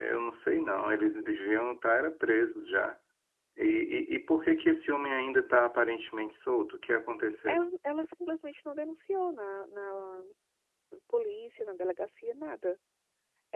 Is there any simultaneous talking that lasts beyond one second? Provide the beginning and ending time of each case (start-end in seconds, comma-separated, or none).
none